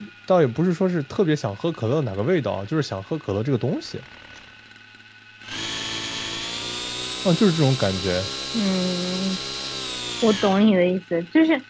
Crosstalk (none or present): none